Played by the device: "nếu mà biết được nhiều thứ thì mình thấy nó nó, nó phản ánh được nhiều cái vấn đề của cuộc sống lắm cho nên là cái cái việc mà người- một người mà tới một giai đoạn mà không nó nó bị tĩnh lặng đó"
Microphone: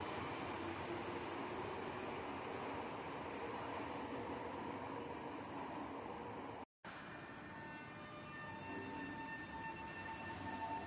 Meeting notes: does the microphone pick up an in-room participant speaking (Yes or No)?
No